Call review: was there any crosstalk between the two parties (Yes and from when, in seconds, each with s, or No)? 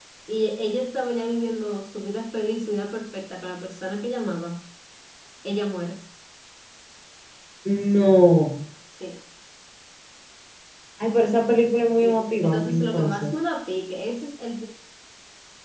Yes, from 12.0 s